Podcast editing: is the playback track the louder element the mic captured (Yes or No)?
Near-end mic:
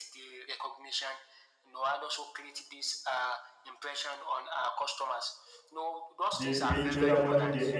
No